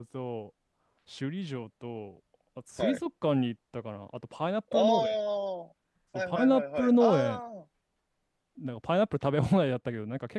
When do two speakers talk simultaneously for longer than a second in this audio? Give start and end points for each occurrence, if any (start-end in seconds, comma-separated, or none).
6.2-7.4